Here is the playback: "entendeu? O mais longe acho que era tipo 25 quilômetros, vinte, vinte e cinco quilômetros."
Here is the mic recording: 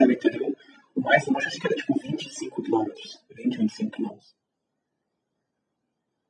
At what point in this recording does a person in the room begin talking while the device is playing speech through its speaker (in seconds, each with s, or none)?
none